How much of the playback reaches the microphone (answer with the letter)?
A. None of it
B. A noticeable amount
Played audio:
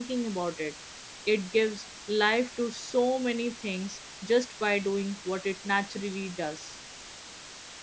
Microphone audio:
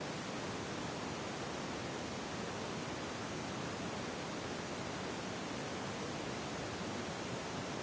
A